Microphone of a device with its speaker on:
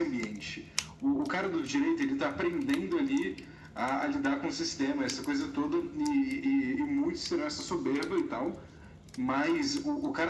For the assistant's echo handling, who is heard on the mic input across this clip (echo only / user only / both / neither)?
echo only